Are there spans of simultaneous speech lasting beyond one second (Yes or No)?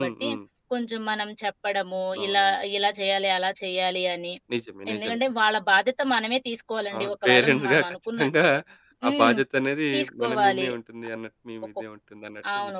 Yes